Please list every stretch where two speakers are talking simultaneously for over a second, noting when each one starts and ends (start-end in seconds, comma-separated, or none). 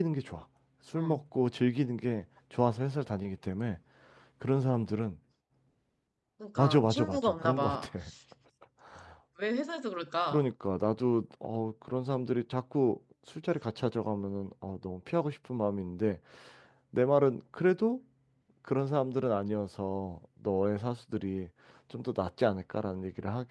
6.6-7.9